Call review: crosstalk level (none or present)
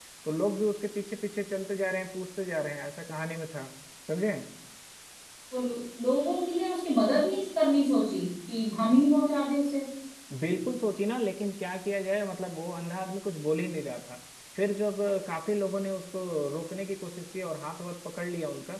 none